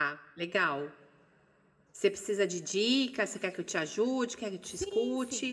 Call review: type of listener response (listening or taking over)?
taking over